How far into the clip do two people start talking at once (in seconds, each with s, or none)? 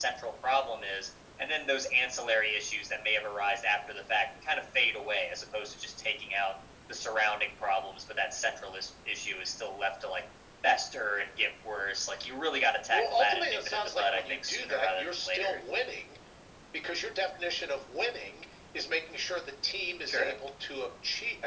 12.9 s